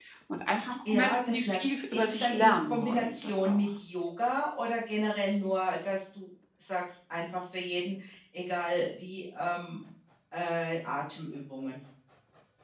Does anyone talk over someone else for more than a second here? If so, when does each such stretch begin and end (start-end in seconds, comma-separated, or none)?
0.9-3.7